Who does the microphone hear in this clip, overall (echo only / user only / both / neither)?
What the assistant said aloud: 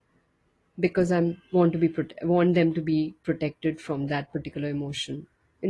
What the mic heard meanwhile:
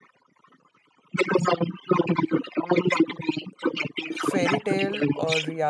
both